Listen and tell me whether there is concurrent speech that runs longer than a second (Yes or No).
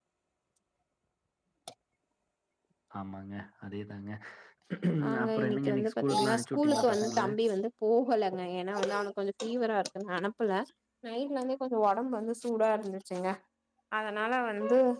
Yes